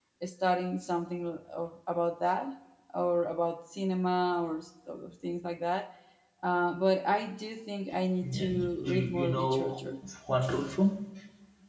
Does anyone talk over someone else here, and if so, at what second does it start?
8.2 s

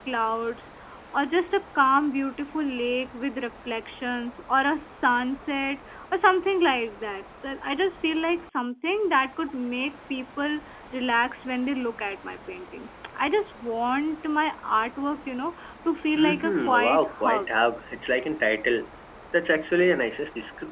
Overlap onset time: 16.1 s

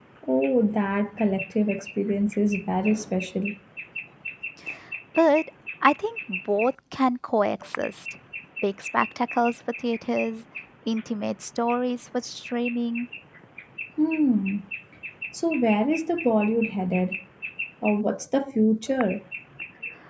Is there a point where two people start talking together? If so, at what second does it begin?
none

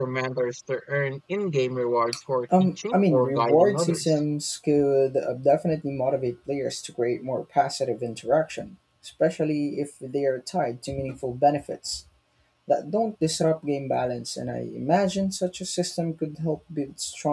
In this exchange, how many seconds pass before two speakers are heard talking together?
2.5 s

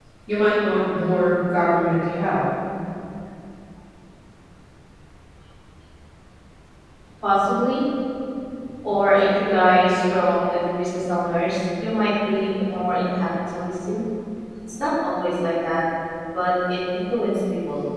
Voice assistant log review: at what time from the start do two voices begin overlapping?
none

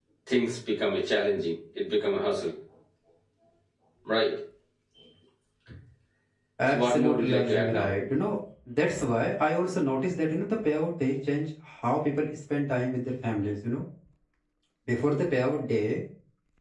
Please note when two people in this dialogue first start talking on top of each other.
6.7 s

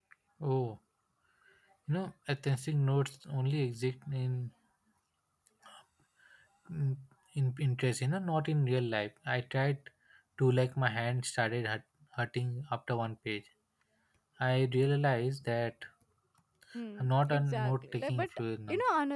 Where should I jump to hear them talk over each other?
17.0 s

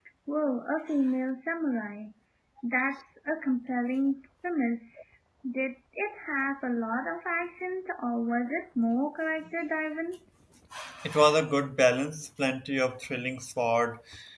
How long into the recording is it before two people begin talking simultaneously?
none

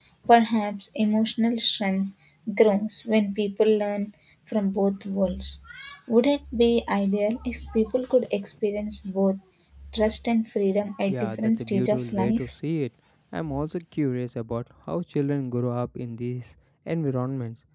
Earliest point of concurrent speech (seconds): 11.1 s

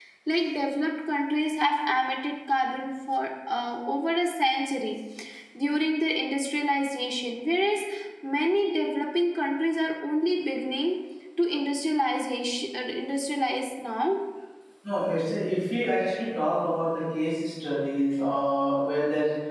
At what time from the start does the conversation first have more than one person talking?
none

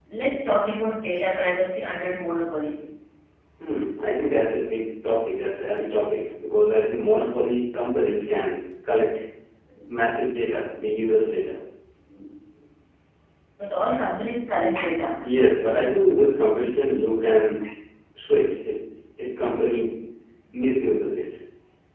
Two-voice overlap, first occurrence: none

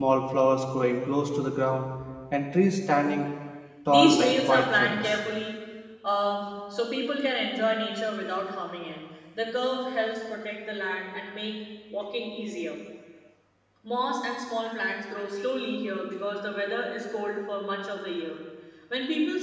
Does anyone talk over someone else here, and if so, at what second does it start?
3.9 s

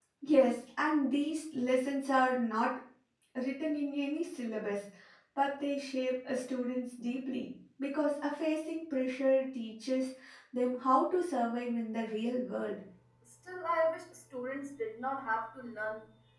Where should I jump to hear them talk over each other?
none

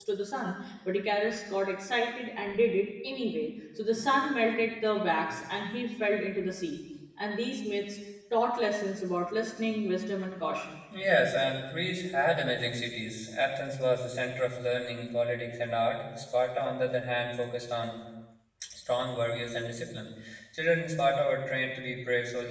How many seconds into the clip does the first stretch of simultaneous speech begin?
none

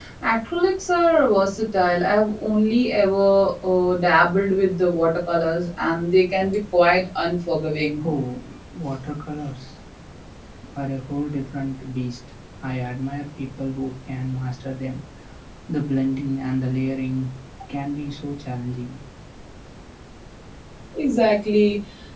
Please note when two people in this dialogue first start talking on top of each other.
none

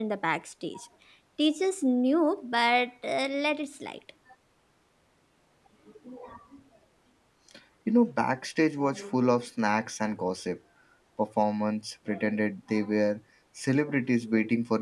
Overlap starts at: none

